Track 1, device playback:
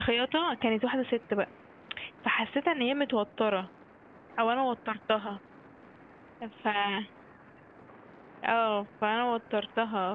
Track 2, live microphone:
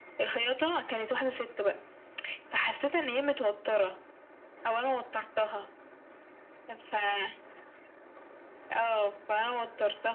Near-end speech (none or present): none